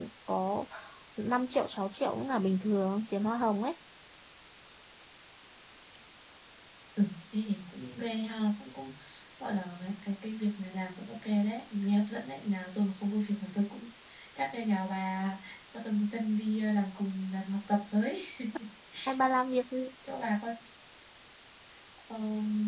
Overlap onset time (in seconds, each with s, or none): none